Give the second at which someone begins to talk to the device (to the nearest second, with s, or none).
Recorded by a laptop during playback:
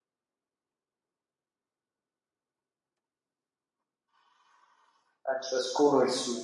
5 s